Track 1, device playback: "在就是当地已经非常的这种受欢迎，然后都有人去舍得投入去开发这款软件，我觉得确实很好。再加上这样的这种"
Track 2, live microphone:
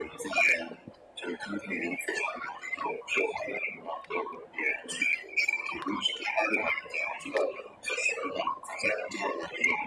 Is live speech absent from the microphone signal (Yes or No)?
Yes